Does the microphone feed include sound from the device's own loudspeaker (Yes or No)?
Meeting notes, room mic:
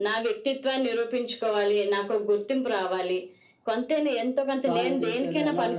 Yes